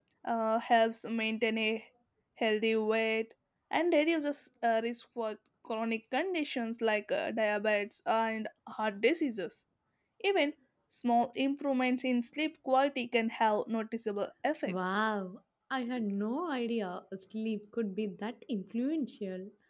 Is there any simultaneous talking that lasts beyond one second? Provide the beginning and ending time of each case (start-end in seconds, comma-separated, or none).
none